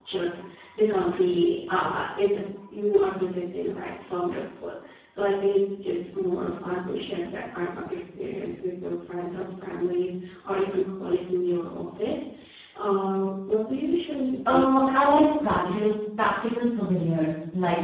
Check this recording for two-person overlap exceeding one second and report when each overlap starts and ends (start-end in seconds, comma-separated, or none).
14.5-15.9